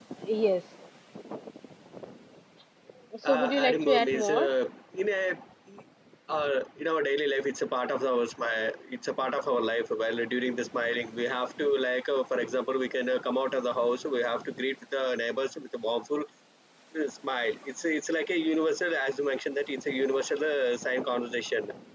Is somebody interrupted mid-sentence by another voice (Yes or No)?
Yes